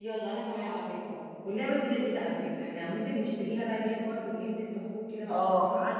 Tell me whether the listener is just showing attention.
No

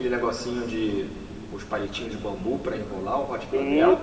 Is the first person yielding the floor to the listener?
Yes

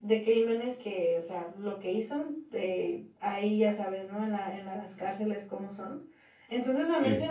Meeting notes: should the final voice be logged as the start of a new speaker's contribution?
No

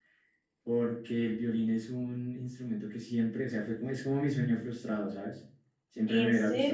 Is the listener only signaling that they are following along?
Yes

